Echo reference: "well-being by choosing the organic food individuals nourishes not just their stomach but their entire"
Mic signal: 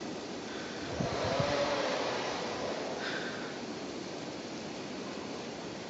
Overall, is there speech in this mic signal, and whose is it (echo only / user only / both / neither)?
neither